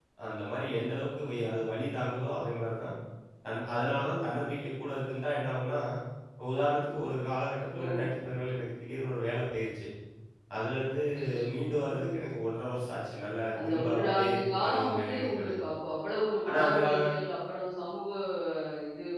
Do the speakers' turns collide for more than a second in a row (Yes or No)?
Yes